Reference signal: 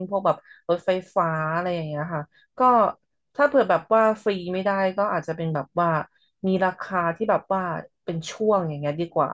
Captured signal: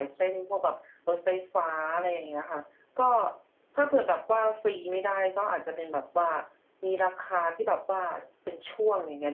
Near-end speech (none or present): none